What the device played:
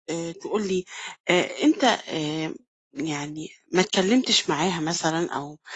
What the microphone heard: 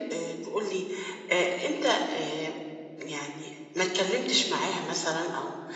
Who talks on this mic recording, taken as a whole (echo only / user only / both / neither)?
echo only